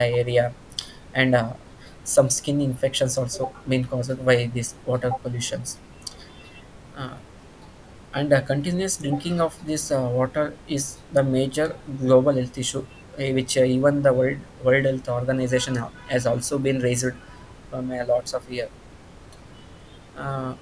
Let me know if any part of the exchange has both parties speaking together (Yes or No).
No